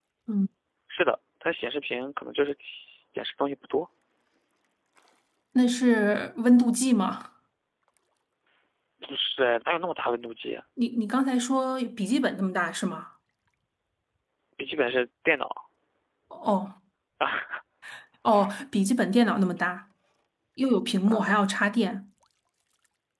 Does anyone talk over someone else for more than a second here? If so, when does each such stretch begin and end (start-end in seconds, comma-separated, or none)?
none